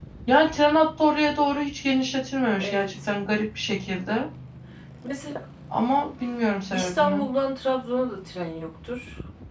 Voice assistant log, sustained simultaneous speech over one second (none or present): none